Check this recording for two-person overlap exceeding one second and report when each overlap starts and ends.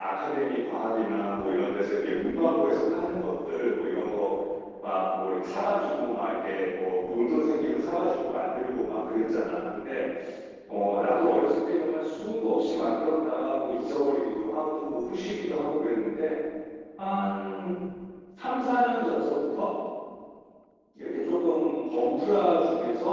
none

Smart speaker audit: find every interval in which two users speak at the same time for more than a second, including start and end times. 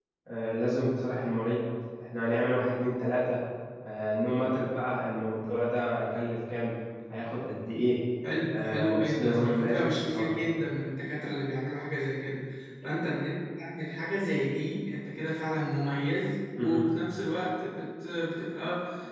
8.5-10.3

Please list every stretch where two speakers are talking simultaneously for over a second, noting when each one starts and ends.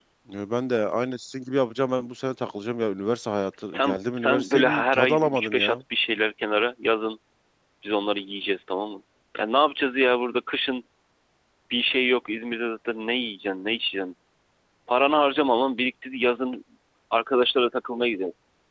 3.7-5.8

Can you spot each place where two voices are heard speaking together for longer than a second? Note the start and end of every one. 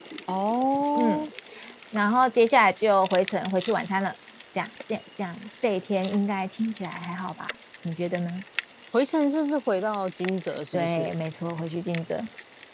none

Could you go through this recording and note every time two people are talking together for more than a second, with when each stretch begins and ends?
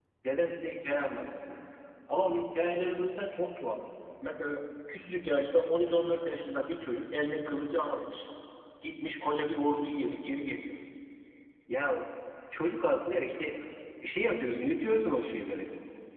none

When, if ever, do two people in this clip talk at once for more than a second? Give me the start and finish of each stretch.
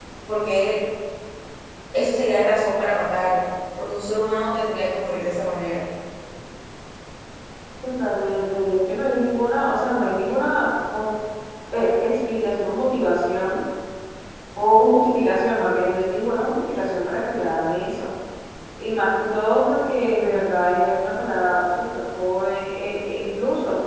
none

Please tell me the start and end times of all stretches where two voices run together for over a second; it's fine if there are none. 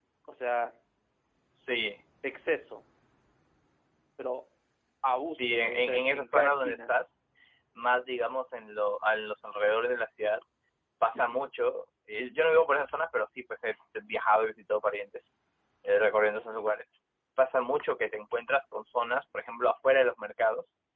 5.2-6.9

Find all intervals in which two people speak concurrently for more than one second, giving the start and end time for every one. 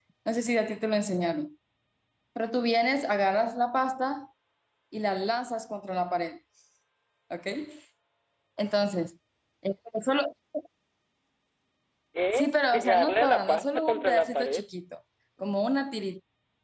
12.3-14.6

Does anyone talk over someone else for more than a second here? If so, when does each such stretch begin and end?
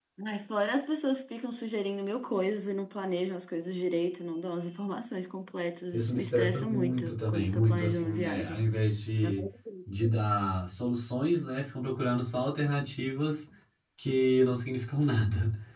5.9-8.7

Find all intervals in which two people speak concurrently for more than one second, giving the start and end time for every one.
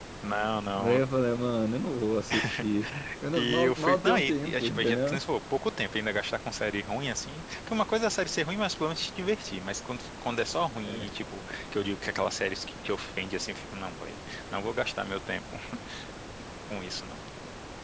3.3-5.2

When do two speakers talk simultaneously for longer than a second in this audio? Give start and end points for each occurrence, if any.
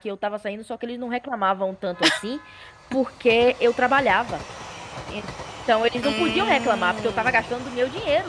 6.0-7.4

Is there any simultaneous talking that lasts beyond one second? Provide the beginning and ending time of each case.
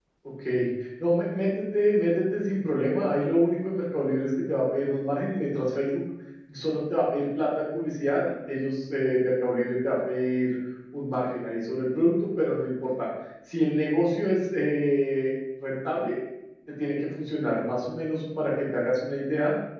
none

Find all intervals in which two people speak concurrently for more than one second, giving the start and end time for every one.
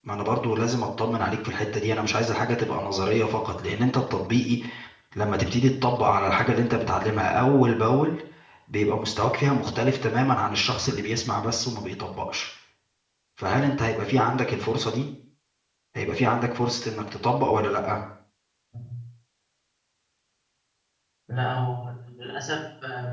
none

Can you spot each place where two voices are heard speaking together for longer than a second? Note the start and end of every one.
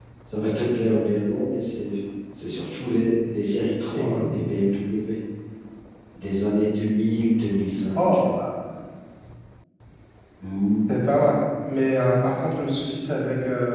none

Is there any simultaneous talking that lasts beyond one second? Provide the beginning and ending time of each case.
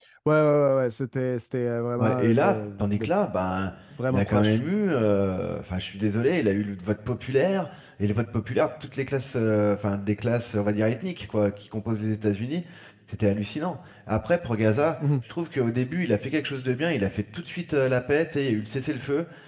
2.0-3.7

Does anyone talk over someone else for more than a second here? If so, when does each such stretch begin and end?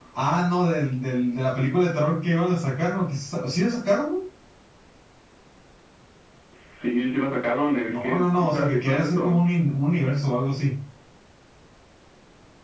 7.9-9.4

